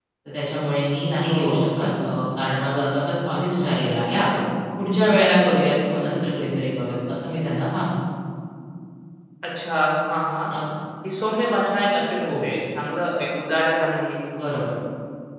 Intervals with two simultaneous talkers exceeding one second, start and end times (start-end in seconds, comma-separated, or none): none